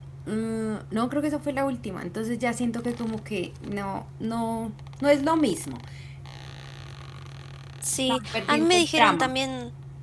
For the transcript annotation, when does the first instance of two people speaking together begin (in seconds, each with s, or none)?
8.1 s